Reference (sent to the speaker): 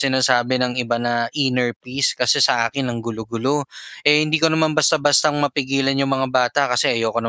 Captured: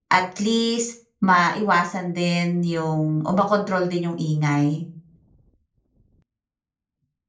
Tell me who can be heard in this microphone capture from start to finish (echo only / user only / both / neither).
user only